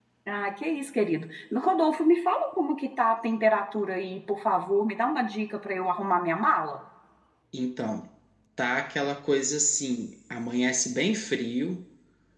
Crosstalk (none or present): none